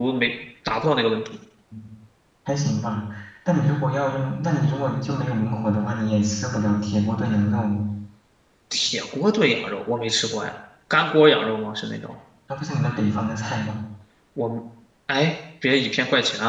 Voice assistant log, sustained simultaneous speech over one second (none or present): none